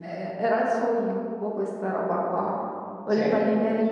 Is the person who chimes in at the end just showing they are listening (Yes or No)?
Yes